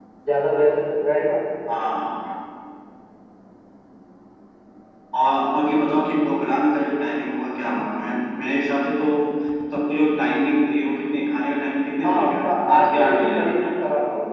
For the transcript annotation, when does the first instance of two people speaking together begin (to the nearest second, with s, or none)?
12 s